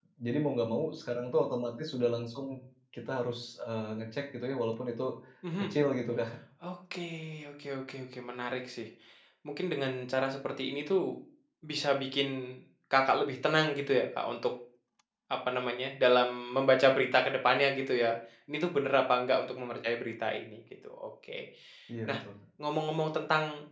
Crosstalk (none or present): none